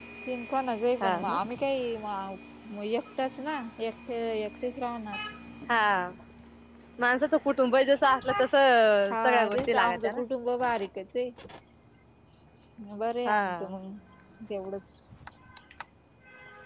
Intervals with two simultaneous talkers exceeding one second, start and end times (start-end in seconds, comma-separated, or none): 9.0-10.2